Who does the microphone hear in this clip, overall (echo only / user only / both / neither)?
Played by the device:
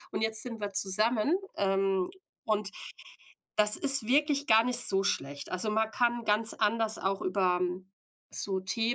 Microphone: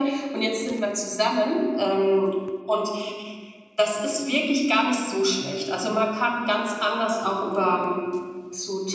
echo only